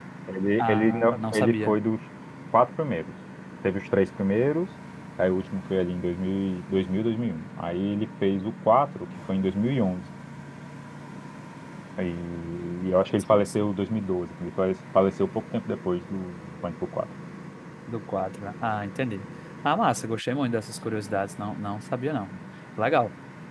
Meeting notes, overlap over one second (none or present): present